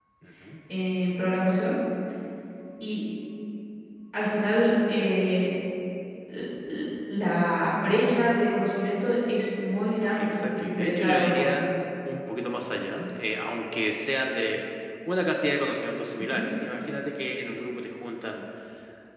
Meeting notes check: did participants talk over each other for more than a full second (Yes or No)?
Yes